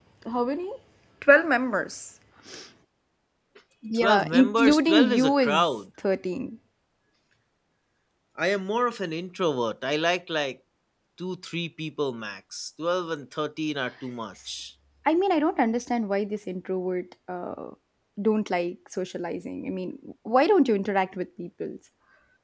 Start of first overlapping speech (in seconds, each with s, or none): 3.9 s